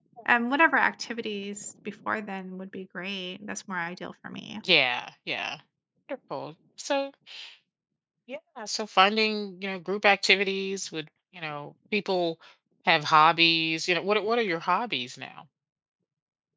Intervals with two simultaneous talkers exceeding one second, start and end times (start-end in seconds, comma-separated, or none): none